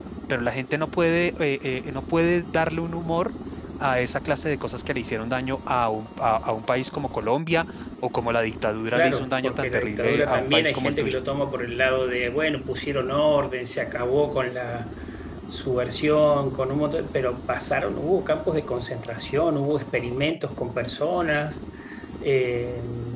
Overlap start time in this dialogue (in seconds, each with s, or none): 8.9 s